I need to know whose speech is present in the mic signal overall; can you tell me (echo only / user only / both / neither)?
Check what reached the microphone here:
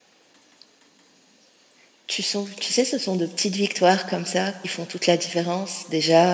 user only